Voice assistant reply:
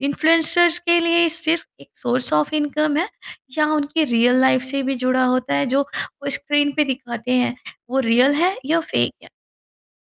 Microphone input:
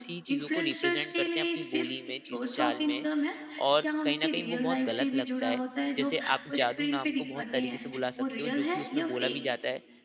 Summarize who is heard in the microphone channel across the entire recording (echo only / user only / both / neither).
both